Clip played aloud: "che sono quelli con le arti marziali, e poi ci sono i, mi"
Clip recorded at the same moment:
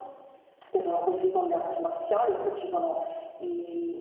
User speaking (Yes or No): No